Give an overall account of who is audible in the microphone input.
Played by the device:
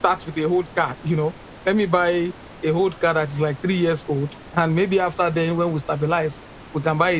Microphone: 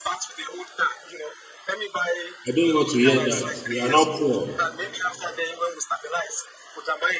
both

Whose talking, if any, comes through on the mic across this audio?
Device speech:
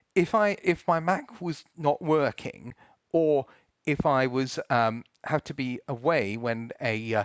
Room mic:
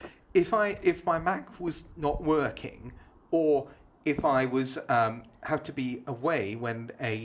echo only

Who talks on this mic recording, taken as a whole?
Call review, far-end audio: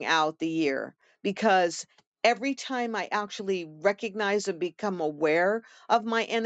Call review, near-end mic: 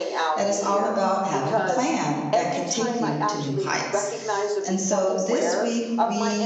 both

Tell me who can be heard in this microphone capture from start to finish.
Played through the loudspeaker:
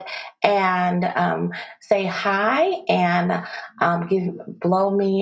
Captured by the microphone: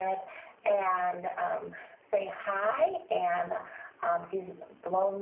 echo only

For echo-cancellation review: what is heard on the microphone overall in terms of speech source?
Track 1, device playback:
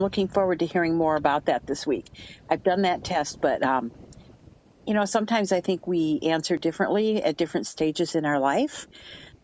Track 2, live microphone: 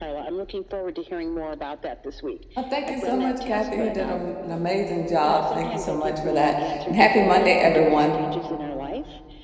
both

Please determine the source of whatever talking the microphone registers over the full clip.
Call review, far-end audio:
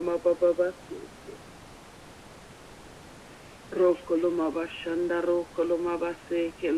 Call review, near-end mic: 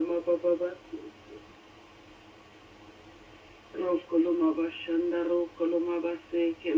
echo only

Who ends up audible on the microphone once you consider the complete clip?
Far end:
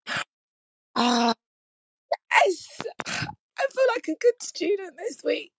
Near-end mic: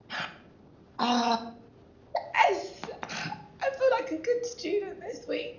echo only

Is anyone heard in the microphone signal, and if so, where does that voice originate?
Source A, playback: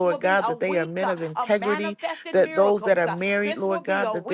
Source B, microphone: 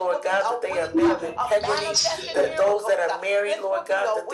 both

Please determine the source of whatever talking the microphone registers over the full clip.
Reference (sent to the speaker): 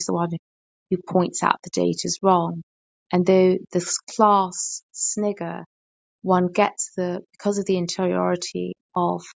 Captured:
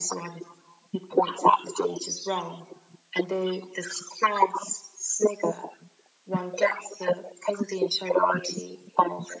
echo only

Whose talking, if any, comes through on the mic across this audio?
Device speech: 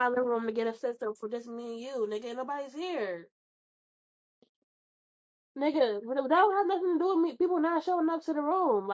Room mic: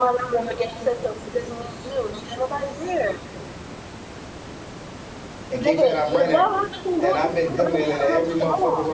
both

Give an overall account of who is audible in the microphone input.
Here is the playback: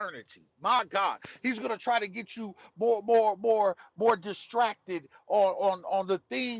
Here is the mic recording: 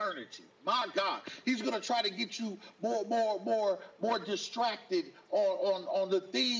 echo only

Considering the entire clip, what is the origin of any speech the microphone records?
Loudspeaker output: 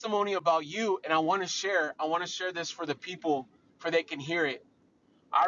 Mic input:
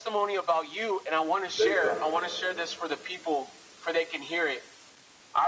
both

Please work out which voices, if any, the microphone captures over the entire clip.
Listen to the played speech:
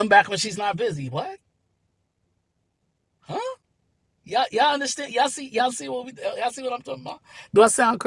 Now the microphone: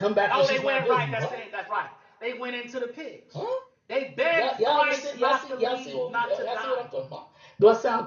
both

